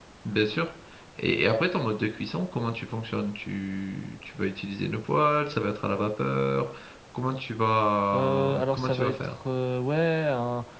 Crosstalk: present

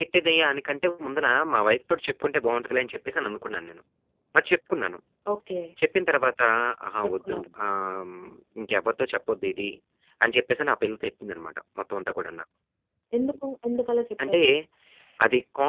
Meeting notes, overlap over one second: none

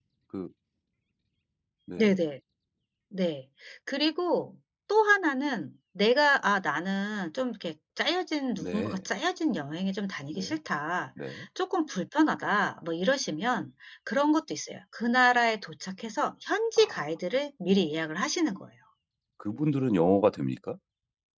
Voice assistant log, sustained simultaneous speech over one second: none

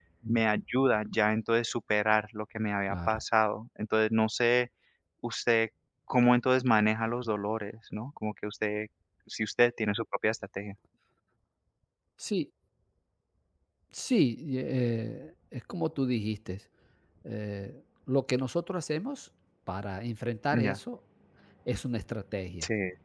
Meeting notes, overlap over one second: none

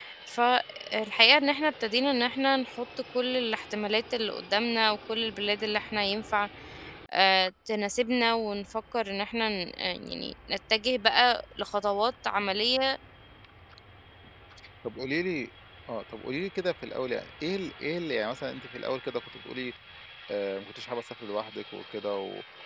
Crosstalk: none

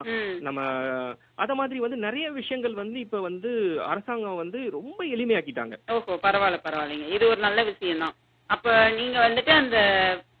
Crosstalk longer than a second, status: none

